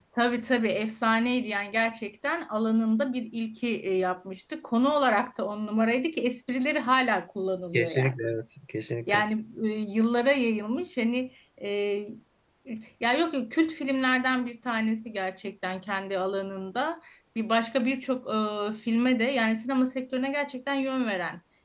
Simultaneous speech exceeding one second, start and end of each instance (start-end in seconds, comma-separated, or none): none